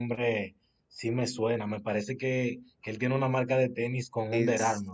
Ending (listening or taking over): taking over